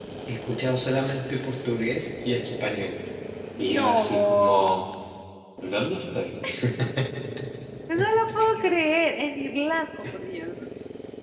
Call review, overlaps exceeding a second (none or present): present